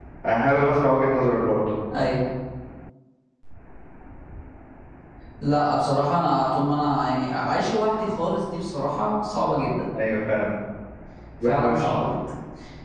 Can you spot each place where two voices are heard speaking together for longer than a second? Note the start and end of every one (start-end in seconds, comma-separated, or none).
none